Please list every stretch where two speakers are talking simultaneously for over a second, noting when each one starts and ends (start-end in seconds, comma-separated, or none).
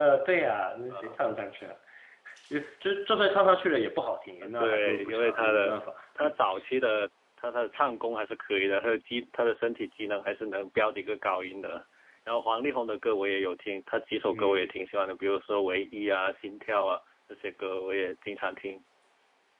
4.4-5.7